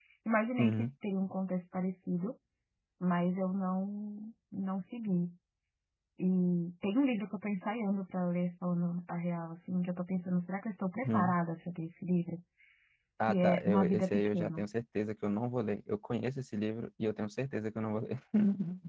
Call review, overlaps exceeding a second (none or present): present